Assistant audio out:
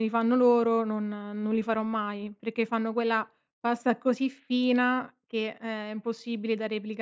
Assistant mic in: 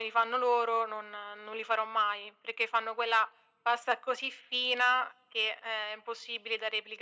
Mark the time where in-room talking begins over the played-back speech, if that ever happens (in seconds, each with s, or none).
none